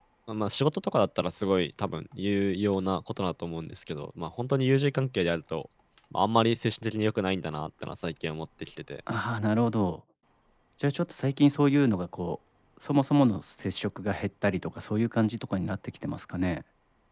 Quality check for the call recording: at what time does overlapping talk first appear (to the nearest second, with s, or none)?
none